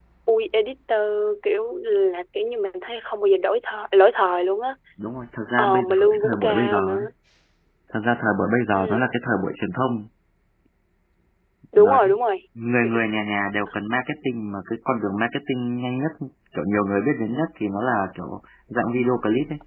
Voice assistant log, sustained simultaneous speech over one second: present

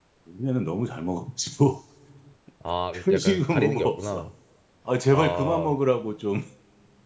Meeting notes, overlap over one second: present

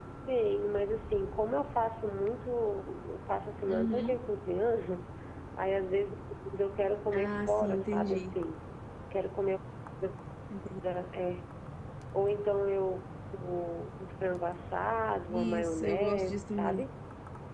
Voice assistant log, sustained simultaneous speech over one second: present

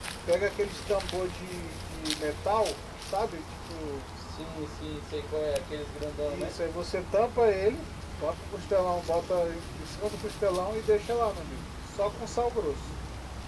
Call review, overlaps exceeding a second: none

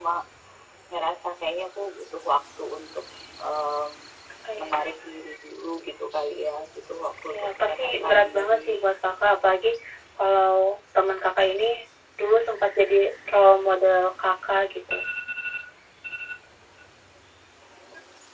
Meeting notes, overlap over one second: present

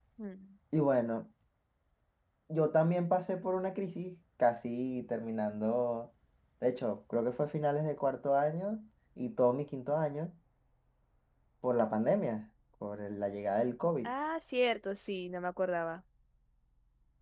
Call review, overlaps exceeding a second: none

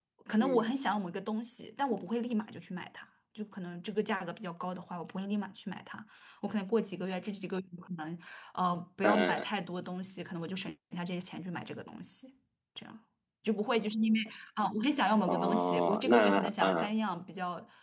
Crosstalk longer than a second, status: present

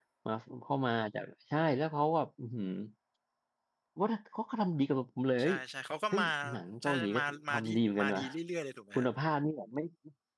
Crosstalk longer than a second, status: present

